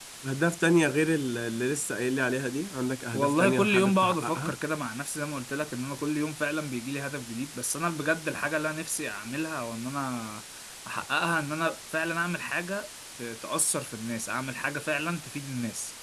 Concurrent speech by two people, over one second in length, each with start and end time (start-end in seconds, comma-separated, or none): 3.1-4.6